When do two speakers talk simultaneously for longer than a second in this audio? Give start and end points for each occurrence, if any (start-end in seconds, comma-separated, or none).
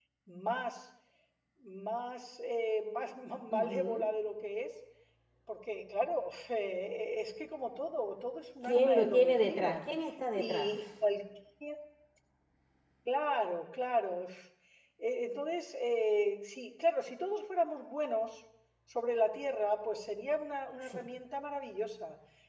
8.6-9.8